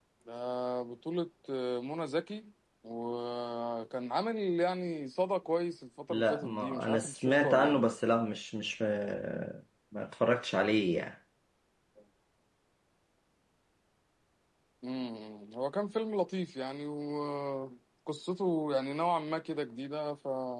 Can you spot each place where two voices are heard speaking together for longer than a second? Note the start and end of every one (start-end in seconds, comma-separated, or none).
6.1-7.9